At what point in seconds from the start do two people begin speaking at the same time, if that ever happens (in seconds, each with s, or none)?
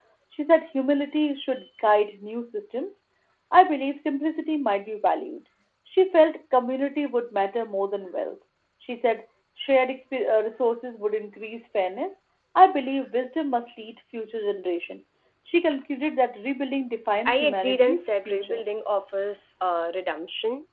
17.2 s